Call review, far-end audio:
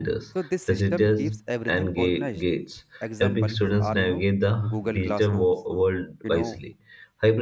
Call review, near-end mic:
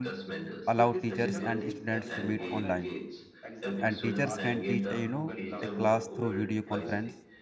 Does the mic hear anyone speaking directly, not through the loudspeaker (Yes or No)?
Yes